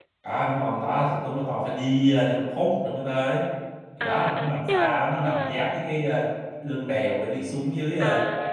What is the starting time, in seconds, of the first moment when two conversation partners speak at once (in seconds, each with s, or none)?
4.0 s